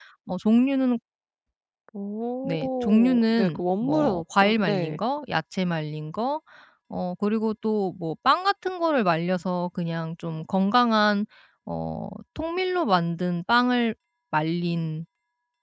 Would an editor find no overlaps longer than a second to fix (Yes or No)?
No